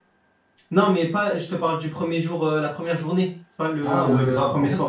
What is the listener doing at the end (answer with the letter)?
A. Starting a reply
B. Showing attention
A